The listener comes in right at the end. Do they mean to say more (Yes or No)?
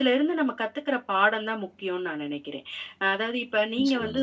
No